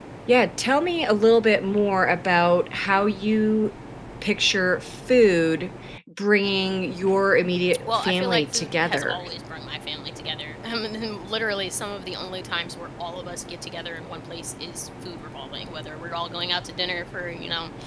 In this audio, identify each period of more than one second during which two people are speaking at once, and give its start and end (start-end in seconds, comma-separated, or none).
7.9-9.2